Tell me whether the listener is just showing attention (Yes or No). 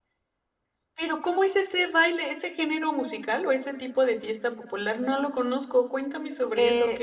No